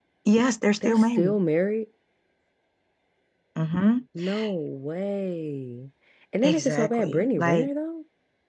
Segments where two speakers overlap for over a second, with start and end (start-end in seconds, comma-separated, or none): 6.4-7.7